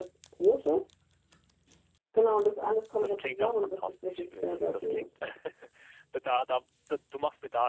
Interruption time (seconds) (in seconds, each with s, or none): 3.0 s